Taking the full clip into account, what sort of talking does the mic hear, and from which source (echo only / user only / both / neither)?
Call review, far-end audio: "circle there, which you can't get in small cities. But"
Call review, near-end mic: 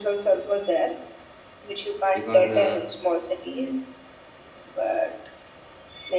both